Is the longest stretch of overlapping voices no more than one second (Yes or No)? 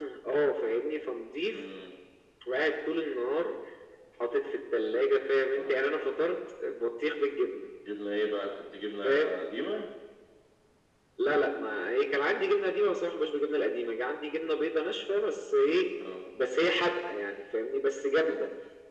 Yes